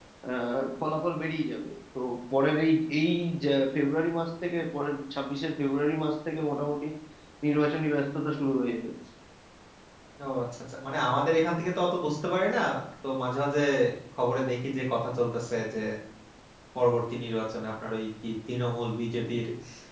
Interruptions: none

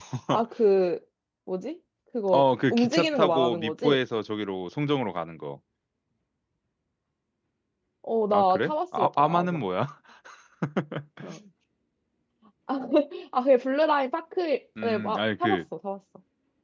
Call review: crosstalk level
present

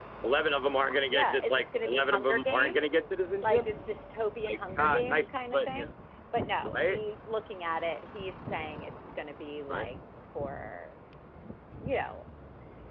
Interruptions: present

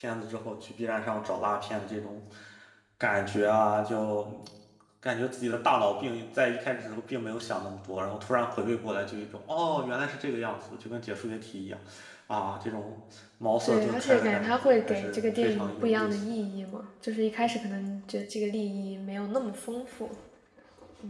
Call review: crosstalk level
present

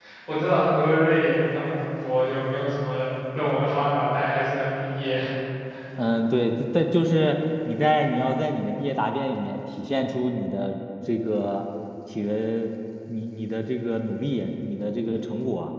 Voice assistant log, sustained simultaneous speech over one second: none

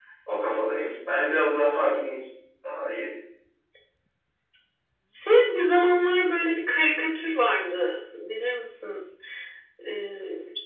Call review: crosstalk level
none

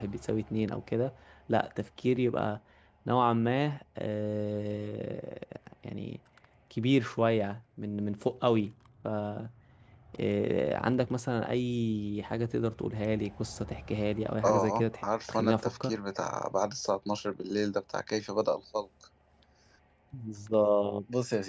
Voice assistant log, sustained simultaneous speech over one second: present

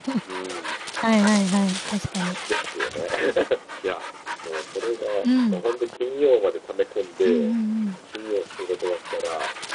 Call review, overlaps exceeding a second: none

